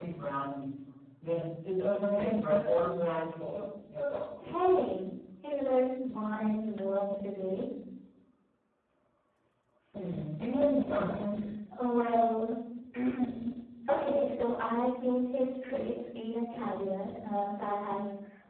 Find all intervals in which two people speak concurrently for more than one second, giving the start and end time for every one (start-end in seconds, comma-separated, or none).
none